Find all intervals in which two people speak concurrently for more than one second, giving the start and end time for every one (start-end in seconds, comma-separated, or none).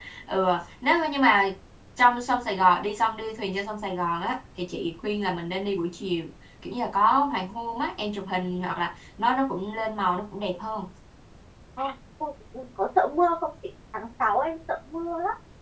none